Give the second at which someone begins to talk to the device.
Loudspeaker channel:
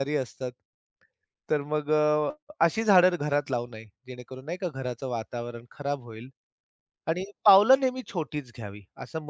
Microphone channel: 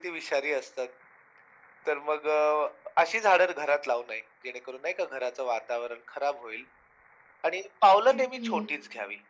8.1 s

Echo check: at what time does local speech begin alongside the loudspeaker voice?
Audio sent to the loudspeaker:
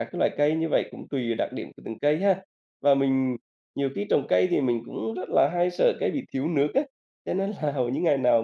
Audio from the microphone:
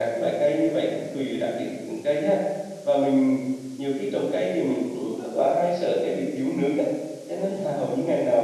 none

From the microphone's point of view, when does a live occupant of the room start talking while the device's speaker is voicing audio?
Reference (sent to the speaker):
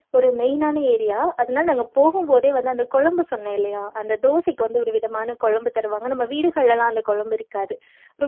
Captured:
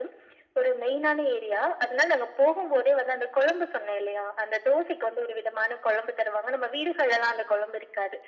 none

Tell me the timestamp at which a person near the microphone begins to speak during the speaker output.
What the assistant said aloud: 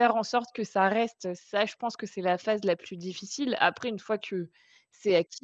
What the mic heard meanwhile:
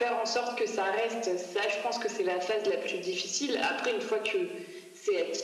none

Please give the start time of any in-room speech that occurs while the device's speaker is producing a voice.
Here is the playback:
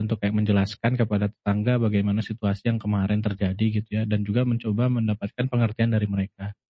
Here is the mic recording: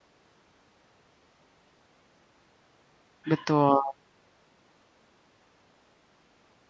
3.3 s

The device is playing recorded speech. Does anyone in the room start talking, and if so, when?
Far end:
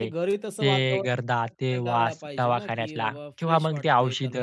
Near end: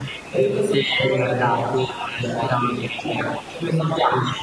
none

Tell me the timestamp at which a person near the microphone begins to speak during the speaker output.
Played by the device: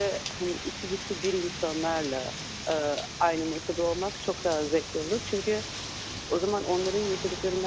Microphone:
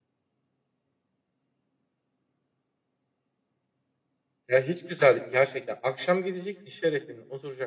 4.5 s

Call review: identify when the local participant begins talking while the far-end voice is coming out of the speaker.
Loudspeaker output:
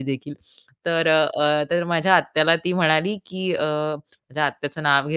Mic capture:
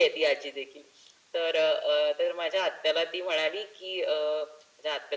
none

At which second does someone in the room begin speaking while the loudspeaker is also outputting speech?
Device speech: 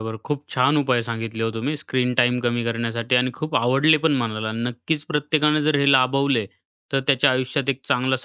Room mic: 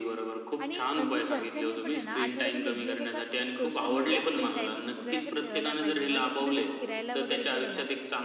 0.6 s

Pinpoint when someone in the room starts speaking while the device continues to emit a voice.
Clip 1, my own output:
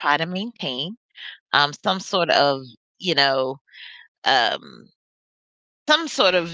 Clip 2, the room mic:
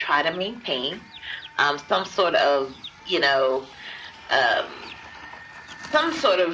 none

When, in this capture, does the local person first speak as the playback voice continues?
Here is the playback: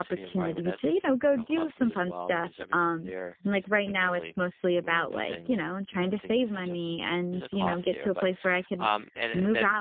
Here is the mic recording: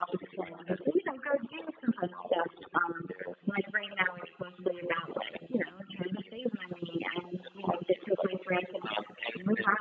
none

